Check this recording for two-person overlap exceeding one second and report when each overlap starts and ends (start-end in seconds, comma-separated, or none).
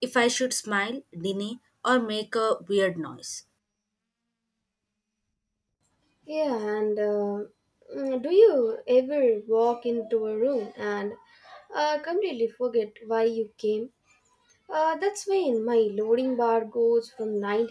none